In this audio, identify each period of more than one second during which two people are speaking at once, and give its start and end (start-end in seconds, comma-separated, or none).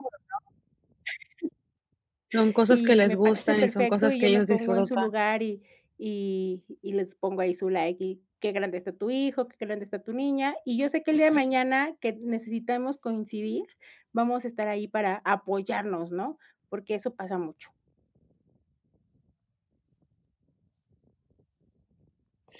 2.7-5.1